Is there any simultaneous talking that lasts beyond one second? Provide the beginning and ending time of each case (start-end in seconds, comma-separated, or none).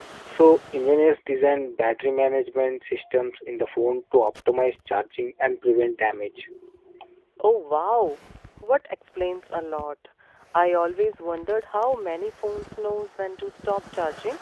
none